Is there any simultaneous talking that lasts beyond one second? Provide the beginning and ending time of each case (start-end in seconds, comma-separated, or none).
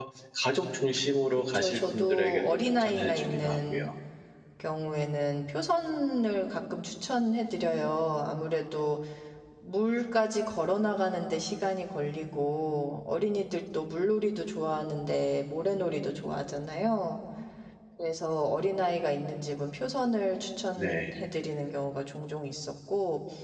1.3-3.9